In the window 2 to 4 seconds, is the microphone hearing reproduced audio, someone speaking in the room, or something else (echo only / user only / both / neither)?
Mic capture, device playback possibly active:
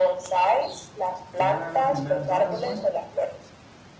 both